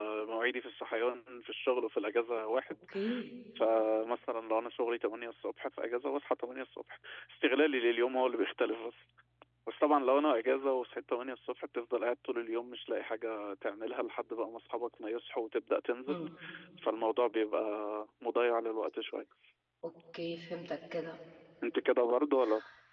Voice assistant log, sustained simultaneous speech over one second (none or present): none